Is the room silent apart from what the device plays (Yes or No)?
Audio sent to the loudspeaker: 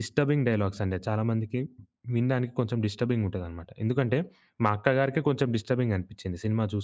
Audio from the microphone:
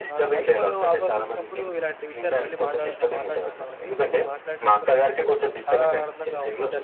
No